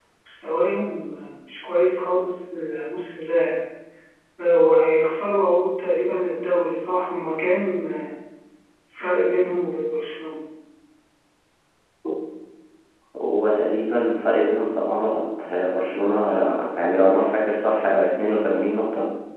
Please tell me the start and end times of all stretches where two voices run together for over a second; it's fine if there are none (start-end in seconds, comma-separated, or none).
none